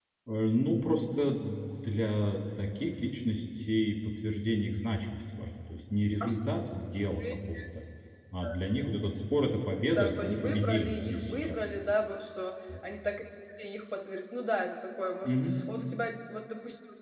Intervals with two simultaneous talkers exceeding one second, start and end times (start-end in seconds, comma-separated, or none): 9.9-11.6